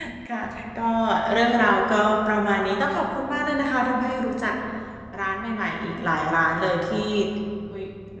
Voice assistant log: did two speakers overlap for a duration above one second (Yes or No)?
No